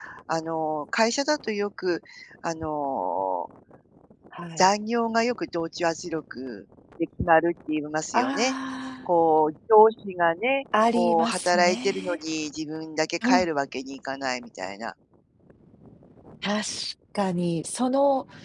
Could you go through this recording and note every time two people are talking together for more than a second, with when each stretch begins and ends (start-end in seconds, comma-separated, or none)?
10.9-12.2